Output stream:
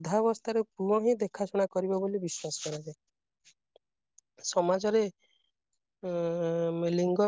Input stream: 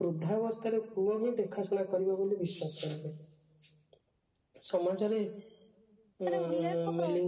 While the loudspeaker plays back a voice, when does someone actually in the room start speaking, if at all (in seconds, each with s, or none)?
6.3 s